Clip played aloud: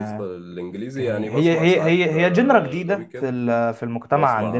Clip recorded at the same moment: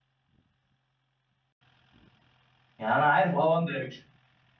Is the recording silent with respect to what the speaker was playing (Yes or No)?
Yes